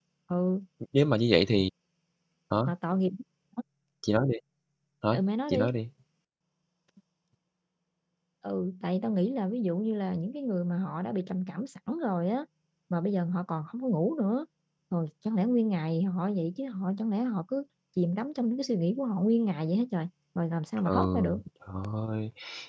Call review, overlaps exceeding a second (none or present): none